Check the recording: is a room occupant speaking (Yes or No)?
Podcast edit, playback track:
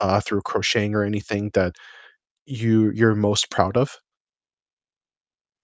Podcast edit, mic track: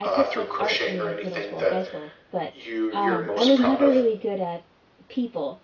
Yes